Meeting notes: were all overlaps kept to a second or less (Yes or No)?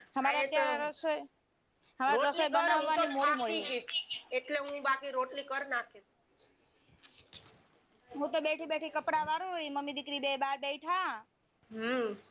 No